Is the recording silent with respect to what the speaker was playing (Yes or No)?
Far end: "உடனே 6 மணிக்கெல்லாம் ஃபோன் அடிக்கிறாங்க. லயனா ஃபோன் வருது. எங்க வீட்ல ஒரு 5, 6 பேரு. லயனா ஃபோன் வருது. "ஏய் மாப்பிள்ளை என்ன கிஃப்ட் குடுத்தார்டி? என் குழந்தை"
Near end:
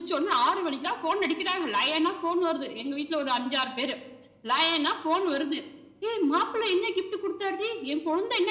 No